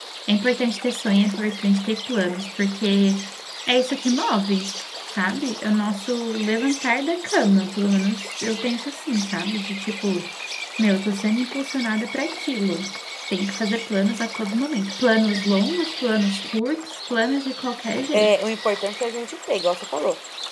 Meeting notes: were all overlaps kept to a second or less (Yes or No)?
Yes